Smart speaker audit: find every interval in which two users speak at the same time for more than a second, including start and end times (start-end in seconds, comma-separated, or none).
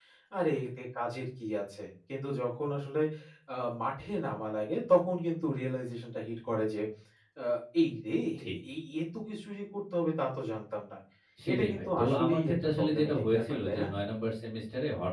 11.5-13.9